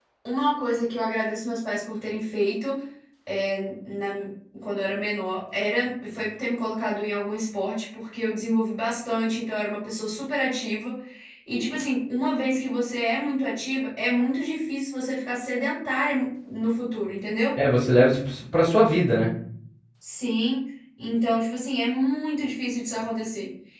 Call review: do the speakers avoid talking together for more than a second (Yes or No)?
Yes